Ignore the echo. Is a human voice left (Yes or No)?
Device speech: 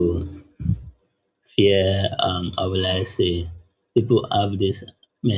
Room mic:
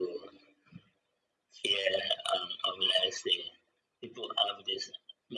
No